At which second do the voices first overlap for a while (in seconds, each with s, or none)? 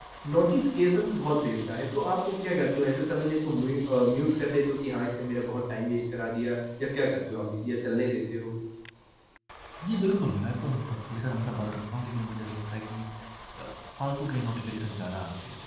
none